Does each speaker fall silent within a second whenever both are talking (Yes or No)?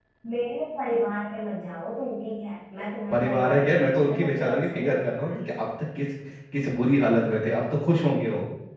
No